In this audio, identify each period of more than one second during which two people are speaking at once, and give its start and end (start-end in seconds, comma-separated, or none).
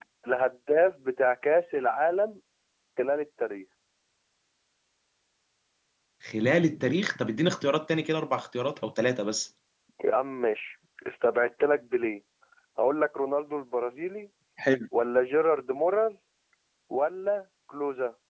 none